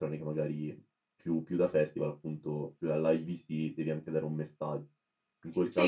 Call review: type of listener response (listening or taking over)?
taking over